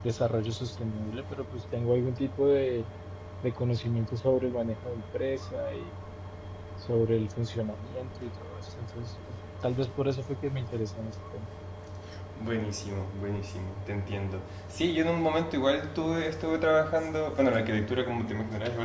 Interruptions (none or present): none